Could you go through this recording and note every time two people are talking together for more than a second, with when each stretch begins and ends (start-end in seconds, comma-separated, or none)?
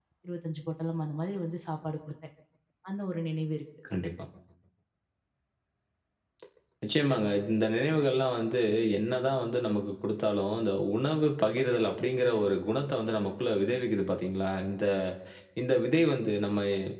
none